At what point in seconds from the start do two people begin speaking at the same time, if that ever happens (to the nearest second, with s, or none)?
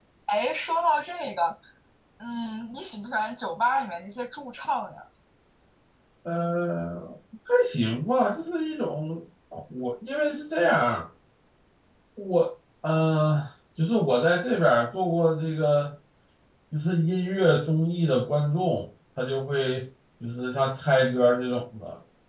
none